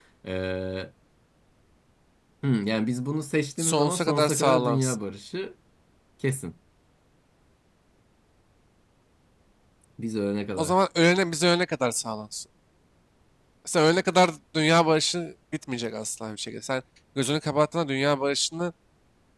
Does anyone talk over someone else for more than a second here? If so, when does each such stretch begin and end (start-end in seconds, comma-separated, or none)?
3.6-5.0